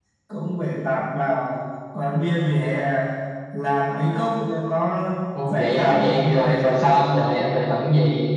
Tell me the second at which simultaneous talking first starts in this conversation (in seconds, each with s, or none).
5.5 s